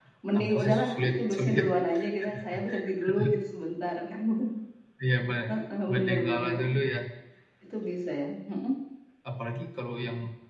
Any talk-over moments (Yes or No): Yes